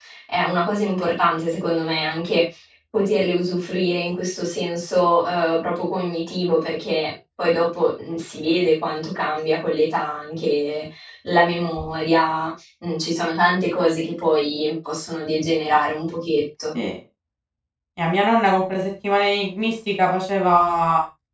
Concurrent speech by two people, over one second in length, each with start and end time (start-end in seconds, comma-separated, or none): none